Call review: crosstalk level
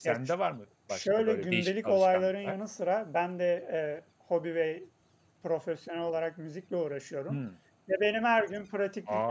present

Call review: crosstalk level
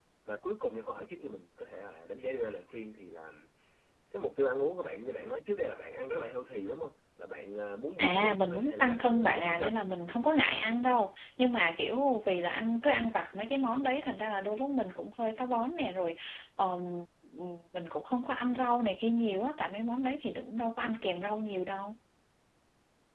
present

